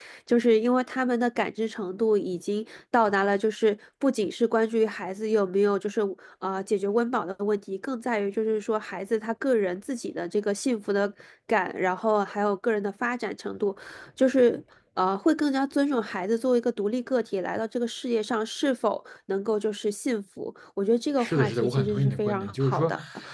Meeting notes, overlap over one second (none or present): present